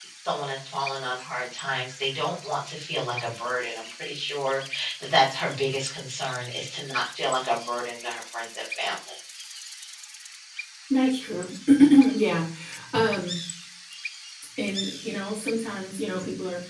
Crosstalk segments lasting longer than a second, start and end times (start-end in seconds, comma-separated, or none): none